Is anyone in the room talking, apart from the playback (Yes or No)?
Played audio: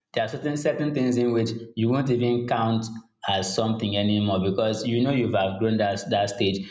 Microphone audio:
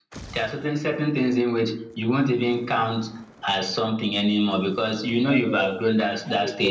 Yes